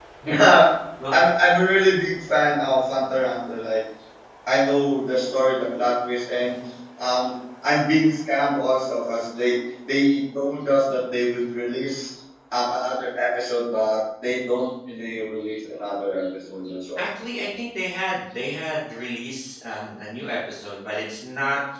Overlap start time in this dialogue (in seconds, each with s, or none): none